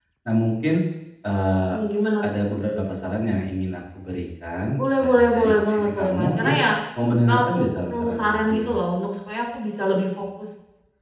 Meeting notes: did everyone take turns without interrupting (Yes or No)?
No